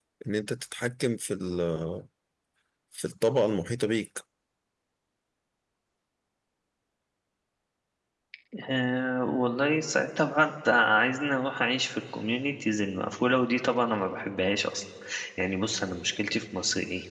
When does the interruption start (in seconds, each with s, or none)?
none